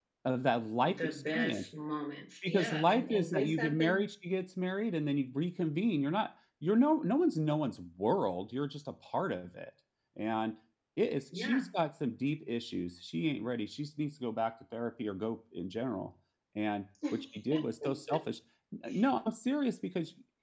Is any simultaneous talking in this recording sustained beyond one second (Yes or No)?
Yes